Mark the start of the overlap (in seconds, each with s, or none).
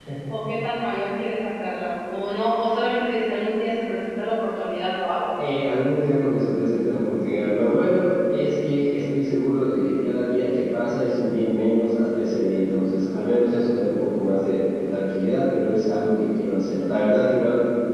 none